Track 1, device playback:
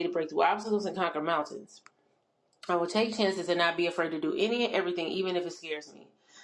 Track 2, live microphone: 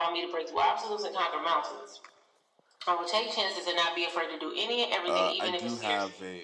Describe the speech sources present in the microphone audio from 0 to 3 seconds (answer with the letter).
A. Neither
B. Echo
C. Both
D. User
B